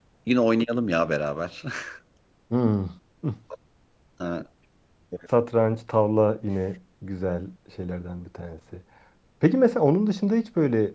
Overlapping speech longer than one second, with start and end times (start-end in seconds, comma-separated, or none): none